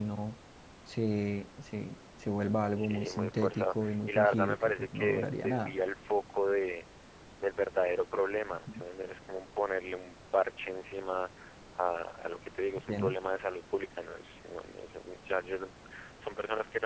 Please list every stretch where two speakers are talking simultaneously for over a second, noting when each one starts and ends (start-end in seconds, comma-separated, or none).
2.8-5.7